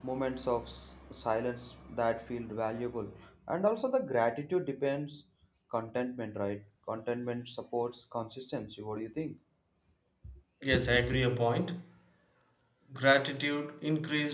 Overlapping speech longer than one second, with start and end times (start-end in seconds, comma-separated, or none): none